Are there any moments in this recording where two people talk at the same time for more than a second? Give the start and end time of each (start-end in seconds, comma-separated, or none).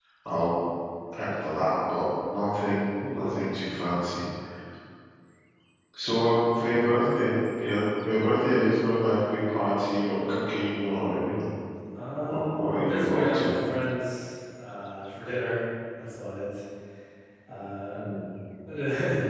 12.2-13.5